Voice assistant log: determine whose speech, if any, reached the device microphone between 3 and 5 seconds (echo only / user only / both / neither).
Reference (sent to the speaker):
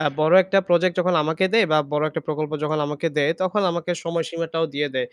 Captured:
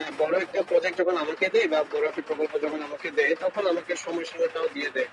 echo only